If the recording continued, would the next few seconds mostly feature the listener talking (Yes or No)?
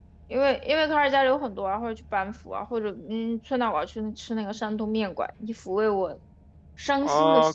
Yes